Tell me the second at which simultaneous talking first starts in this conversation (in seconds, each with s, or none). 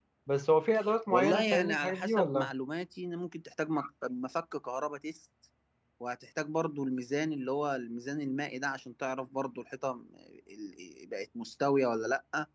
1.1 s